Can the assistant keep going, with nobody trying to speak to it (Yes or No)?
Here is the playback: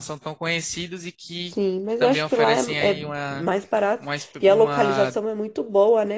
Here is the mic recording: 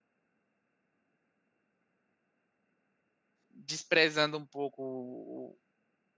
No